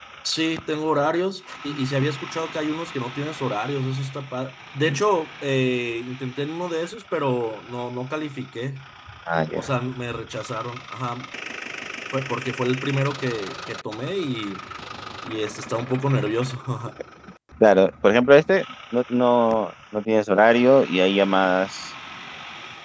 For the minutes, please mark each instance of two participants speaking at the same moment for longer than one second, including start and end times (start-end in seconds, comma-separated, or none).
none